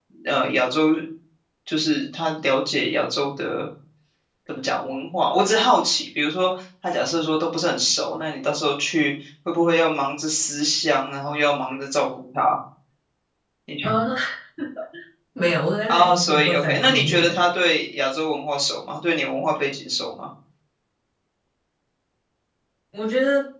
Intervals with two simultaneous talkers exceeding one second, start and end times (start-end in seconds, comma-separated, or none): 15.9-17.4